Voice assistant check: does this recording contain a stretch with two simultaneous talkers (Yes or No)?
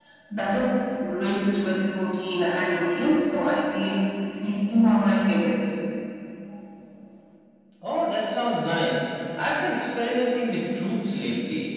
No